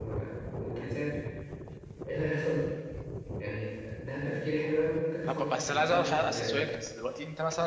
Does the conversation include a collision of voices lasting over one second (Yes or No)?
Yes